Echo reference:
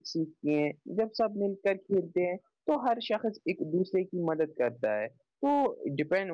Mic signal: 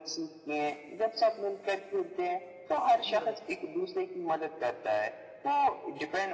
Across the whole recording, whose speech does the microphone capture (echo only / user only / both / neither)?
both